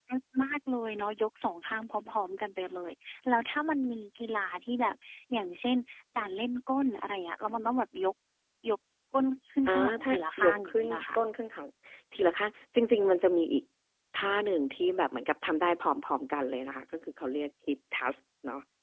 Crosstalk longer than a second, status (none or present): present